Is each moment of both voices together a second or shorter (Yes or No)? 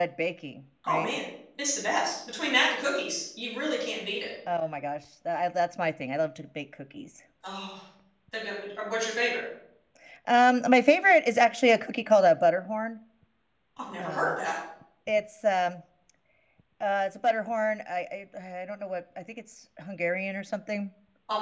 Yes